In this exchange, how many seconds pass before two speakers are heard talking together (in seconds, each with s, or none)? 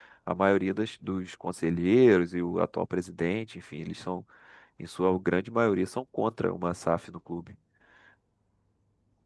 none